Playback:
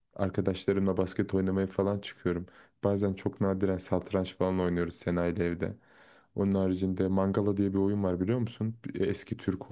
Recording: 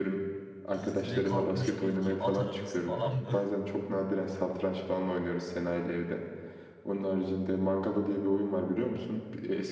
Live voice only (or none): Gizli kalkmış bilgi, at arabası falan mı?